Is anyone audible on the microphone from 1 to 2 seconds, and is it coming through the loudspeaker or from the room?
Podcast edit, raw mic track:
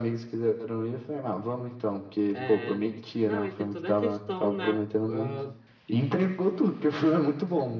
echo only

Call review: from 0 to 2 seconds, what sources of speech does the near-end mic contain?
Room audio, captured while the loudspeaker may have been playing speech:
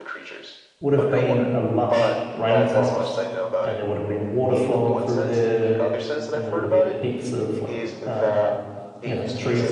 both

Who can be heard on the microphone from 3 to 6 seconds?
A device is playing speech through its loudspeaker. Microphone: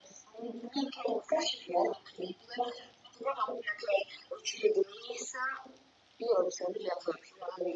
echo only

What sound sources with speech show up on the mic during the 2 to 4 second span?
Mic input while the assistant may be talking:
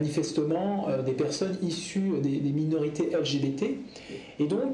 echo only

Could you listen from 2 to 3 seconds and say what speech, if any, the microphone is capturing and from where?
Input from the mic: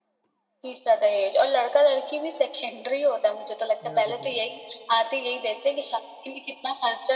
echo only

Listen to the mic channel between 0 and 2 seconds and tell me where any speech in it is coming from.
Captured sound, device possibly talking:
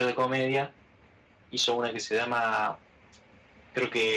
echo only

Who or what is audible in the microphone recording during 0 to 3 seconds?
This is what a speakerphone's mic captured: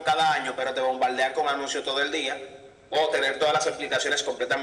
echo only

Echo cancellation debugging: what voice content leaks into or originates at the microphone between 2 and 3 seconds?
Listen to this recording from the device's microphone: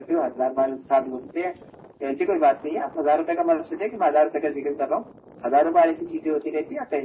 echo only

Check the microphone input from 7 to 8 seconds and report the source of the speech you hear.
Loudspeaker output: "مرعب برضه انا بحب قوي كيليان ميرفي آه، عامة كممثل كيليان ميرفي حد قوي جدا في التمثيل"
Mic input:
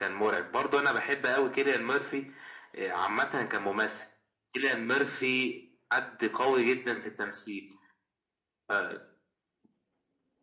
echo only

